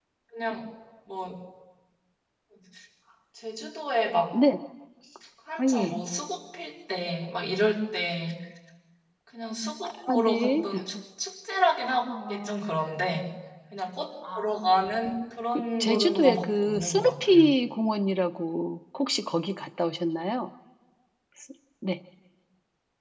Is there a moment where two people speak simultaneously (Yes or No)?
Yes